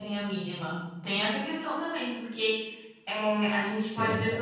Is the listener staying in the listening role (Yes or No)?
Yes